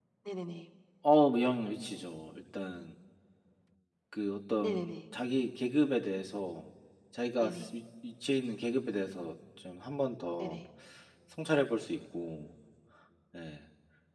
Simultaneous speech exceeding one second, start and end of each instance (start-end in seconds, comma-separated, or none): none